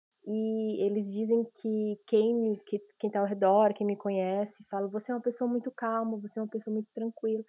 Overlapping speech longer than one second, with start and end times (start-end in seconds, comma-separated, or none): none